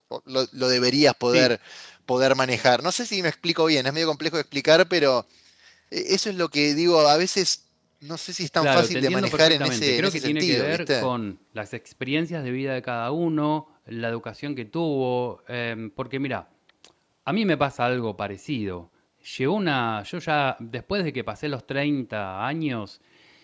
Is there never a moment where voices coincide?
No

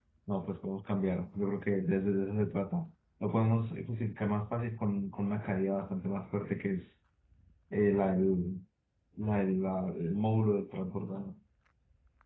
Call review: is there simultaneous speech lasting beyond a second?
No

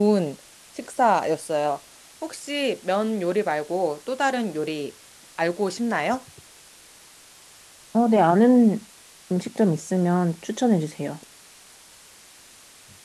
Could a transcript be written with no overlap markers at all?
Yes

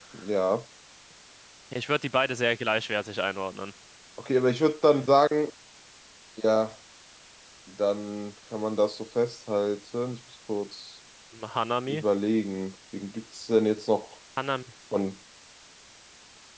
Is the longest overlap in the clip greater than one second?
No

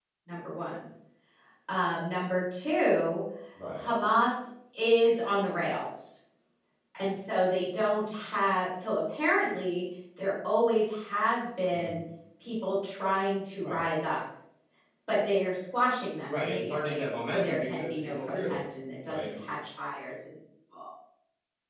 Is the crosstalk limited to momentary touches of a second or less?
No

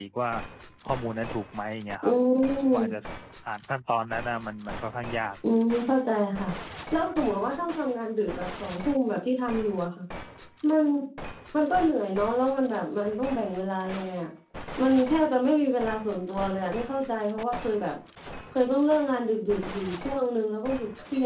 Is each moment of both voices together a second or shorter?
Yes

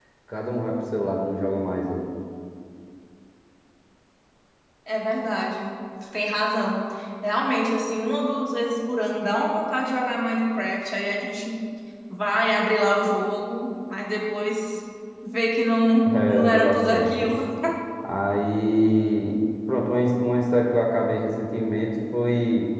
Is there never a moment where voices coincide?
No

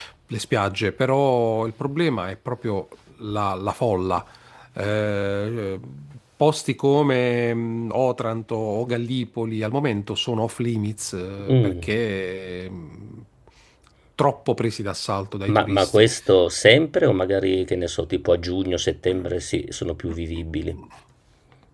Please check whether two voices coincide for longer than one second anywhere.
No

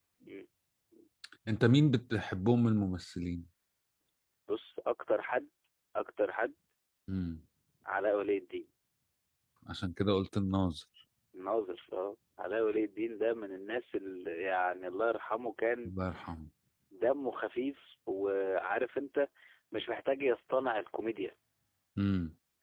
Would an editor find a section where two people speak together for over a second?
No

